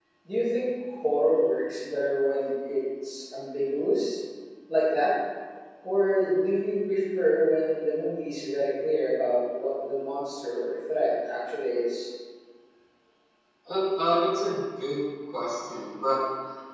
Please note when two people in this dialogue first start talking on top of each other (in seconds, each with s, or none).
none